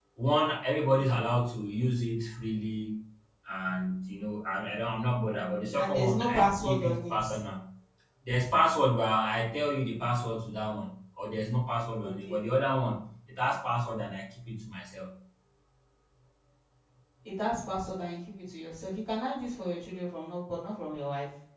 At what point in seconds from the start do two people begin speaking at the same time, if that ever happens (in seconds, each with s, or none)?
5.8 s